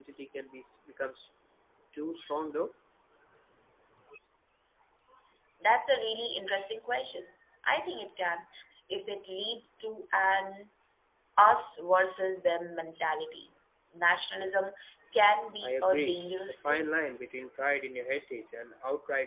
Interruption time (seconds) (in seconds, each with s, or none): 15.6 s